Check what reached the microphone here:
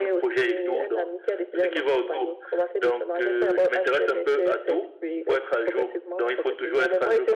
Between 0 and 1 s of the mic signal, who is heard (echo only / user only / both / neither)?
echo only